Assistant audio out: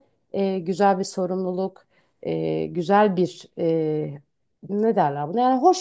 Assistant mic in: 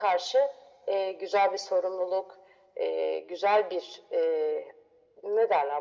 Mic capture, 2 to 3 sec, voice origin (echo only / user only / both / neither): echo only